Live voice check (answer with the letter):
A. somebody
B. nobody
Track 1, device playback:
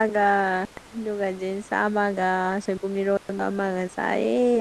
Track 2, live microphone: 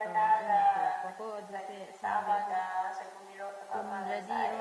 A